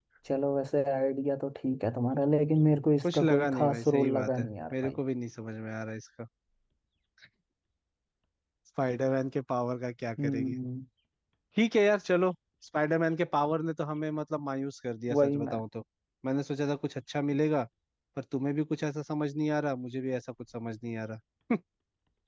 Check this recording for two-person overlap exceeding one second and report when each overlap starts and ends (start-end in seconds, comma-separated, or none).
3.0-5.0